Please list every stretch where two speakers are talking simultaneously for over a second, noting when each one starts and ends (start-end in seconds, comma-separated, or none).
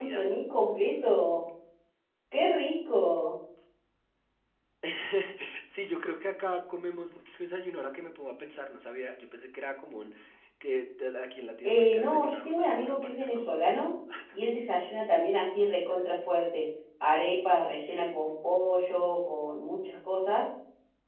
11.6-13.5